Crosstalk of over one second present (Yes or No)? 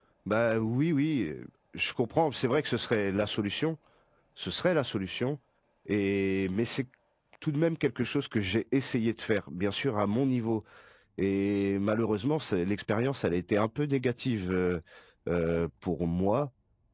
No